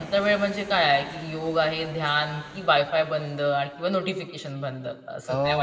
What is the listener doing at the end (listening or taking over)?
taking over